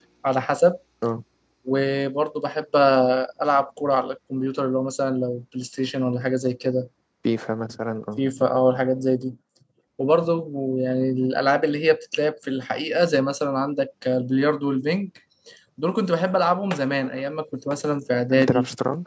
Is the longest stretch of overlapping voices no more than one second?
Yes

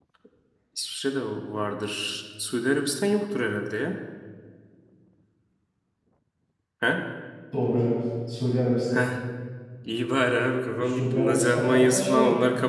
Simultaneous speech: Yes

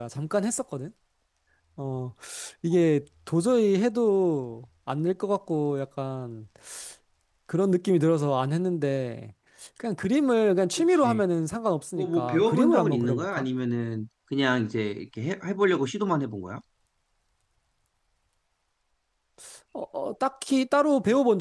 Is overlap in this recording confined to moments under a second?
No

